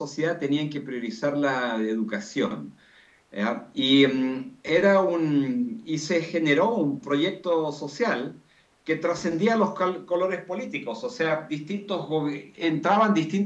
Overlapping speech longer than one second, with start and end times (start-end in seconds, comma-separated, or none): none